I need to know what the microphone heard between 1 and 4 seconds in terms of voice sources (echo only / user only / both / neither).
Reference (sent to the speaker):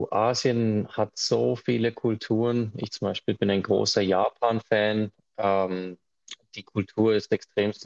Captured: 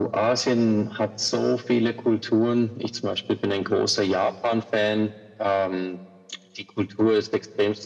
echo only